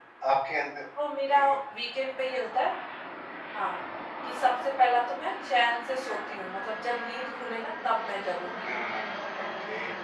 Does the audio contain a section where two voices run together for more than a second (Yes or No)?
No